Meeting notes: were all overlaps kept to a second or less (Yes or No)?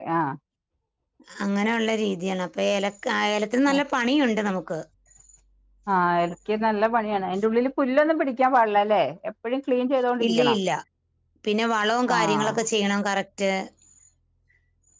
Yes